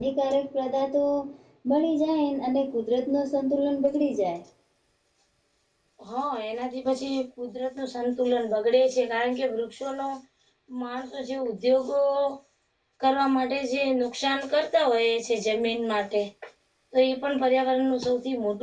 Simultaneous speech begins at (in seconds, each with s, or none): none